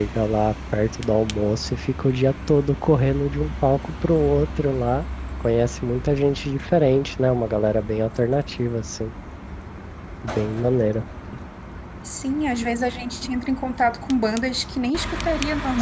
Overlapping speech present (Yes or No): No